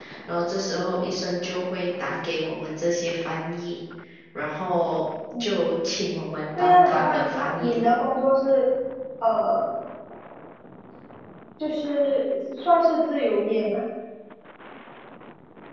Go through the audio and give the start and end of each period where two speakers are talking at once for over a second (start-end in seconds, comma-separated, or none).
6.6-7.9